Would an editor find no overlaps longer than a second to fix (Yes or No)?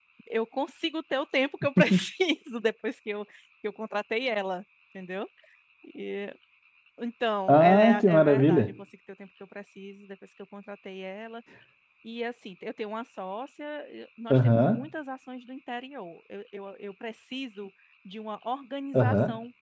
No